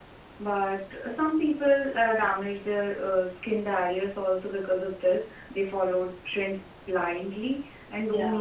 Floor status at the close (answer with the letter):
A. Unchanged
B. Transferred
A